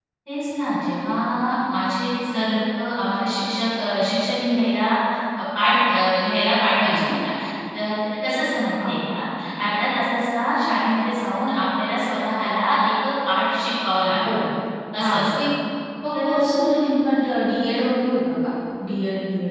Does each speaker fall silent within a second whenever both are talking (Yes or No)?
Yes